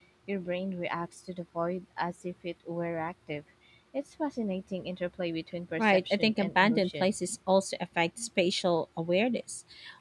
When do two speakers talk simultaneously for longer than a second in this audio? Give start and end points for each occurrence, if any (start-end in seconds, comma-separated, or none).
5.8-7.2